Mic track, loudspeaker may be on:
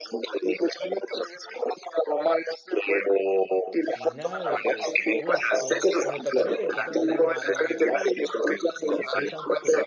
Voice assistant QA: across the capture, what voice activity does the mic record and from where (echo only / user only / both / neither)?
both